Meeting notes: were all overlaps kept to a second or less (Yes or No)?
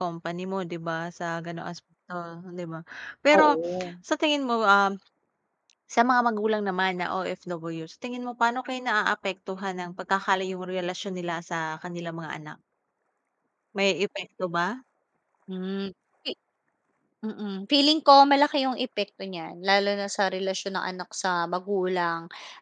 Yes